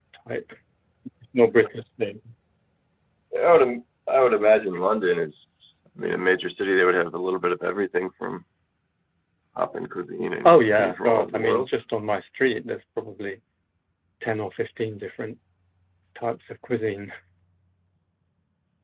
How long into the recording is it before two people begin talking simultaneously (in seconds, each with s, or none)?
10.4 s